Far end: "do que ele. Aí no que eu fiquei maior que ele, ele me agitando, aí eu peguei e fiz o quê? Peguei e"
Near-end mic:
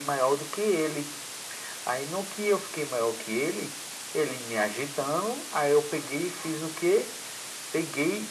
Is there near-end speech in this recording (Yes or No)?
No